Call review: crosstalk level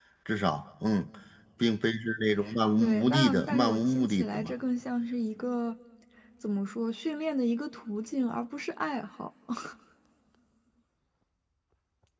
present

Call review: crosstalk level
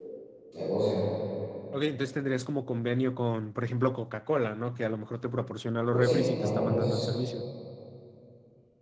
present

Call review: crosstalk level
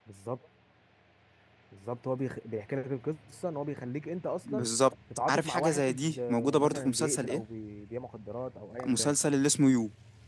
present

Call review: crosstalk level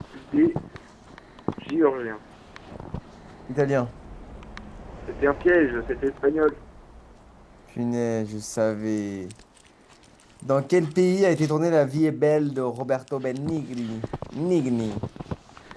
none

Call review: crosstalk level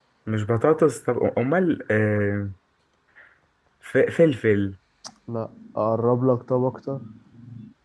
none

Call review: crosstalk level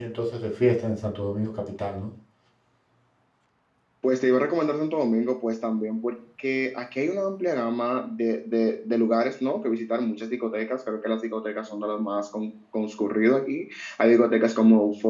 none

